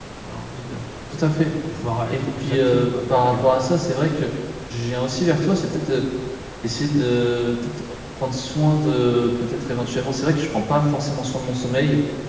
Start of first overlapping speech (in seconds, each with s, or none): 2.1 s